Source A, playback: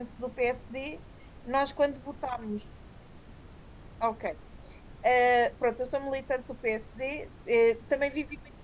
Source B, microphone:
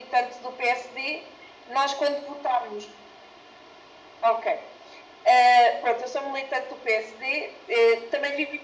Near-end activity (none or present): none